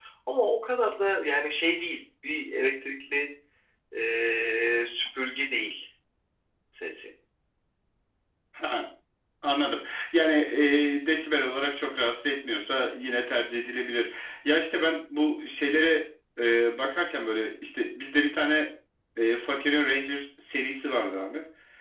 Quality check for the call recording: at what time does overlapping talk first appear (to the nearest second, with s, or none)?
none